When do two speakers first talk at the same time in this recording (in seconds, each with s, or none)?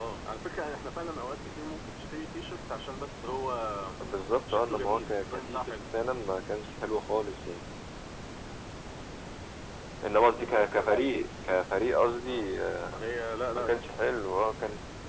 4.5 s